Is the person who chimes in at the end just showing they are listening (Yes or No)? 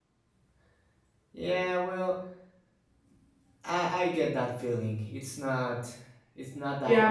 No